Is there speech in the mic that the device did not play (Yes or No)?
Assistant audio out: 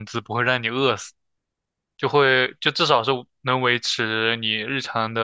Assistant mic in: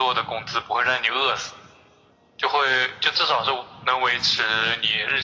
No